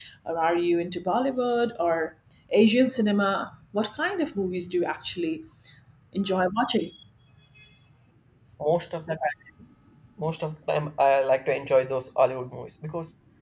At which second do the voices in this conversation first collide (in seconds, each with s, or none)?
none